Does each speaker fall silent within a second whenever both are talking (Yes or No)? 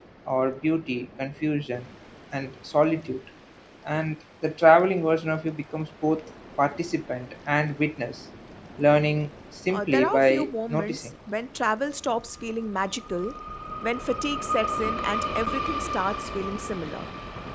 No